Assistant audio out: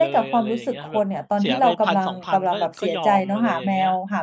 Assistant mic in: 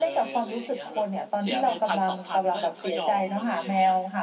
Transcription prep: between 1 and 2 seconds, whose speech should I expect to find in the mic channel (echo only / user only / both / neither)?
echo only